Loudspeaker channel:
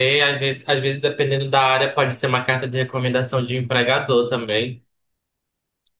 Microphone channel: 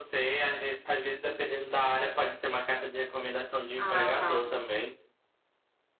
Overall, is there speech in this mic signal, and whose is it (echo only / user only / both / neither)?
both